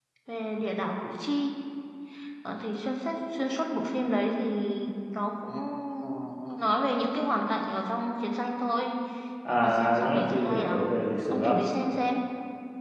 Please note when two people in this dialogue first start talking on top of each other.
9 s

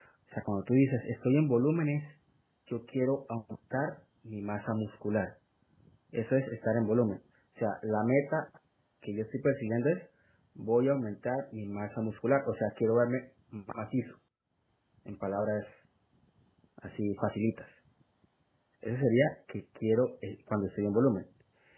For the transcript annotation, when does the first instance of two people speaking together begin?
none

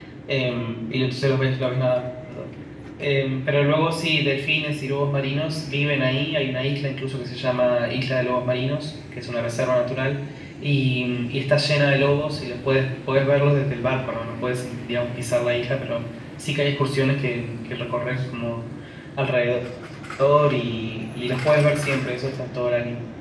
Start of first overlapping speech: none

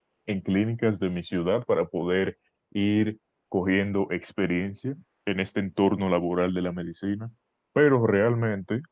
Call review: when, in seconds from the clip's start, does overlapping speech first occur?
none

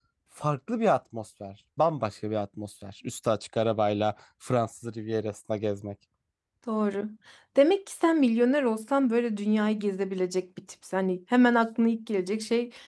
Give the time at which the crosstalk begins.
none

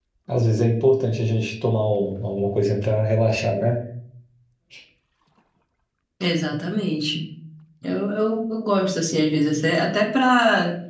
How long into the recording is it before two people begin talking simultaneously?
none

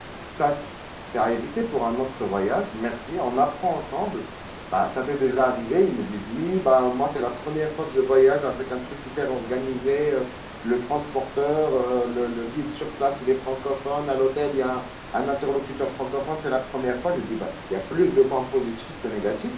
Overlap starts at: none

